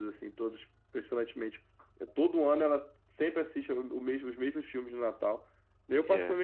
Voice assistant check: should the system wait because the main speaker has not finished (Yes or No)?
Yes